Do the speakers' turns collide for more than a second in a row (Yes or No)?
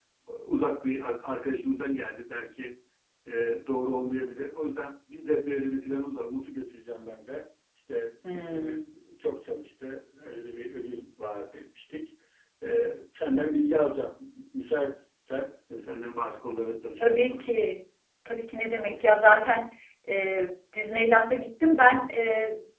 No